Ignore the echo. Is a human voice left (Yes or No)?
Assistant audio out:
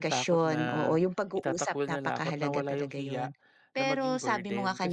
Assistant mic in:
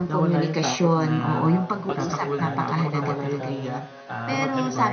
Yes